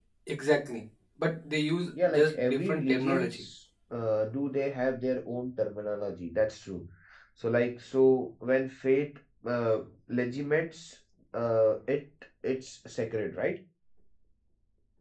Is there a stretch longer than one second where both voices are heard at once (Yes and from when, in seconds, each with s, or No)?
Yes, from 1.9 s